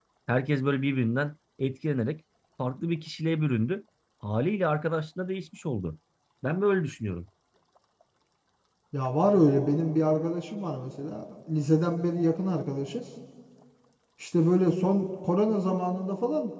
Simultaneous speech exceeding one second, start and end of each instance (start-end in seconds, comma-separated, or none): none